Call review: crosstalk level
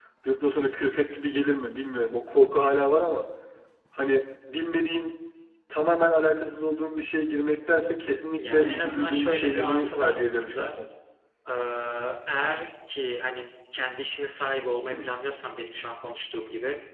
present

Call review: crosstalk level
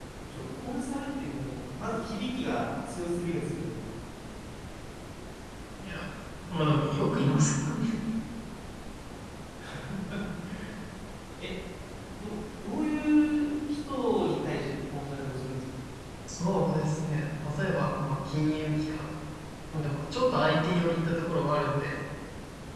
none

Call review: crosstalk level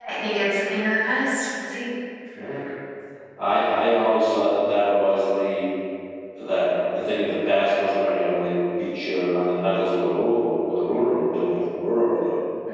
none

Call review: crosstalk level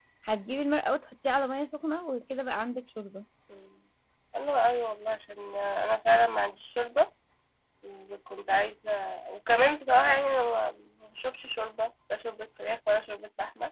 none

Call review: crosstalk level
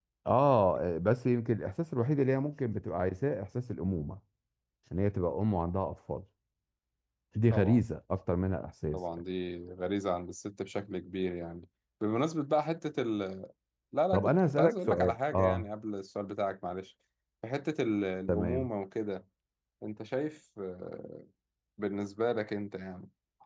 present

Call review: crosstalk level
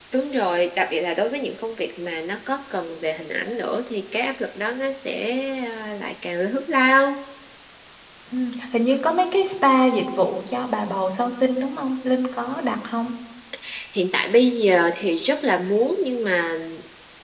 none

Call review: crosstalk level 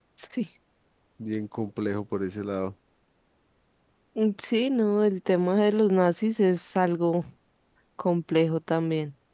none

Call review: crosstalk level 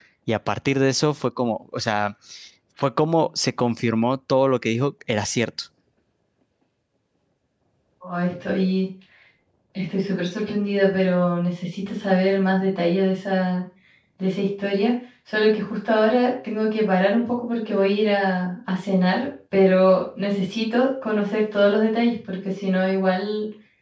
none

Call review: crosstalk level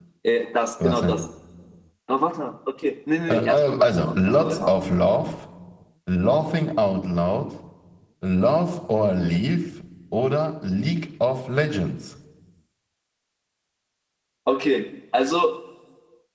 present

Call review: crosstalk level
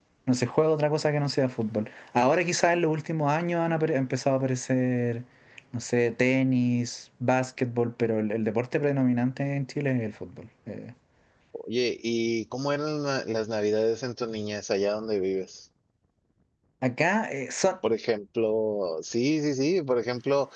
none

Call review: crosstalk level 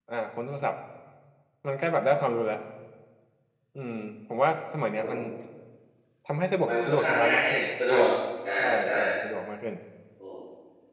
present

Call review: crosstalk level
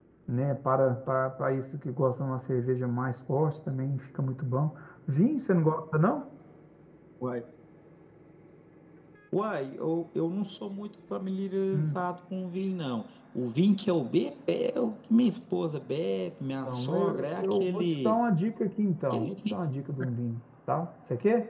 present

